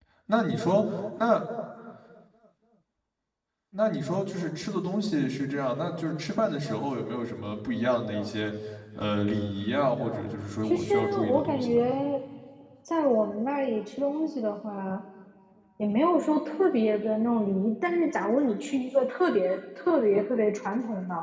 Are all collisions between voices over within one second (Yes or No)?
No